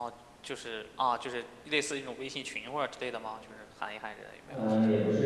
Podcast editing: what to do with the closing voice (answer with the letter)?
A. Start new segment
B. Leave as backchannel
A